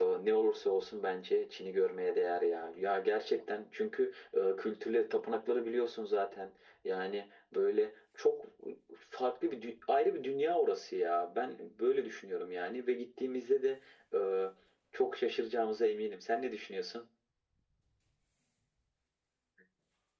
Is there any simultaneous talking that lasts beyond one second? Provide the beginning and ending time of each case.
none

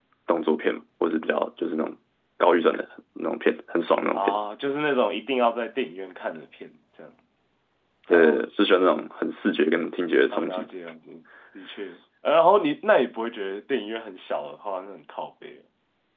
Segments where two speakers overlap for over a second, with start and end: none

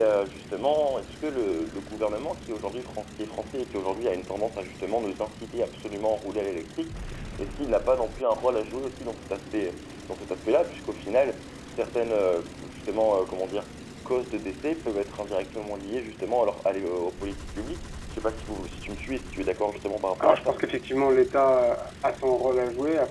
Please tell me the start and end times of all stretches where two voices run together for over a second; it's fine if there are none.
none

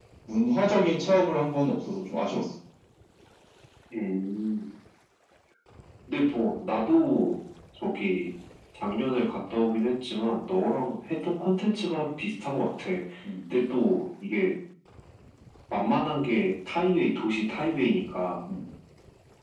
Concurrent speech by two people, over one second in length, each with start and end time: none

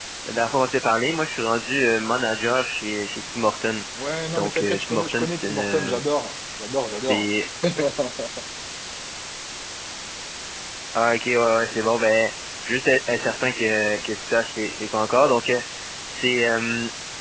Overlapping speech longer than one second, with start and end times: 4.3-6.0

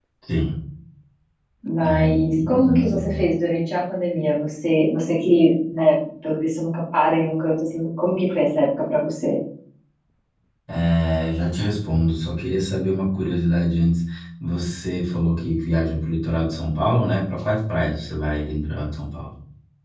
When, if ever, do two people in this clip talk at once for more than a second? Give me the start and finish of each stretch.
1.9-3.2

